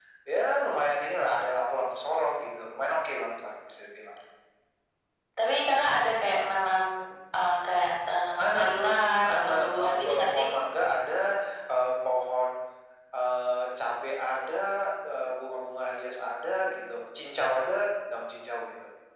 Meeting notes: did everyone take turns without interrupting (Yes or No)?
No